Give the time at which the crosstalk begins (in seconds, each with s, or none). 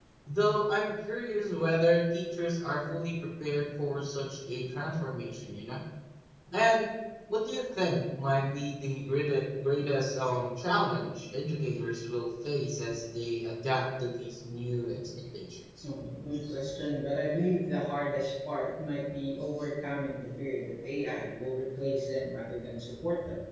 none